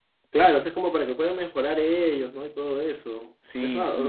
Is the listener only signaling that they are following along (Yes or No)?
Yes